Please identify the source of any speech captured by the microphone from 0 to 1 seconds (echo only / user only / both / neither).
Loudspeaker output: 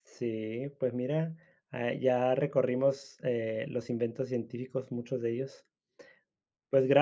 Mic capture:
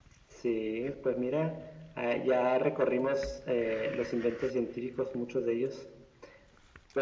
echo only